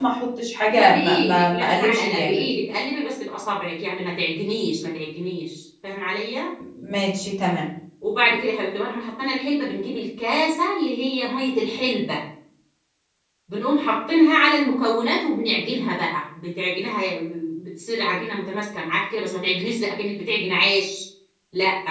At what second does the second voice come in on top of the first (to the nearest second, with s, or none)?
1 s